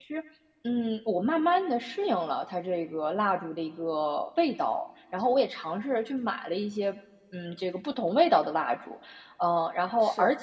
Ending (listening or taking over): listening